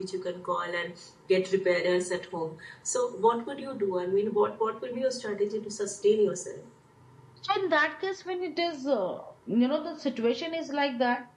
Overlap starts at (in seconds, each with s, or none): none